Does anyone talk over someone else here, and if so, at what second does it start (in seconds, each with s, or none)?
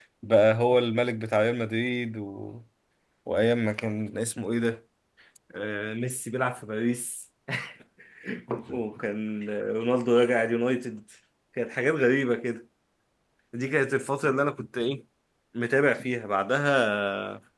none